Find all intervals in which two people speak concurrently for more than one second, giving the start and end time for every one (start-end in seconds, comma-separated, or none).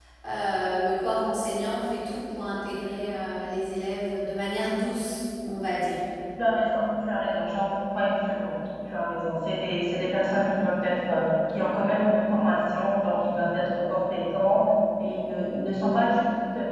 none